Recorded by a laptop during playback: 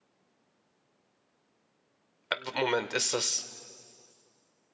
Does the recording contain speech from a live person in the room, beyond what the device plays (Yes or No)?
Yes